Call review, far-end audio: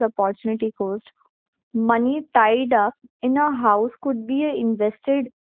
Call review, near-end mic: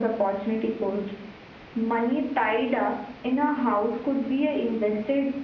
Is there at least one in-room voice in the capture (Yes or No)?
No